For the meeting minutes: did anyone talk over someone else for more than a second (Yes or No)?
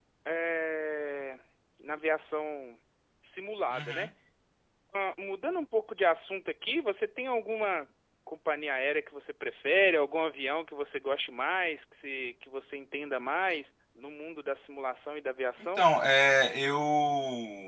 No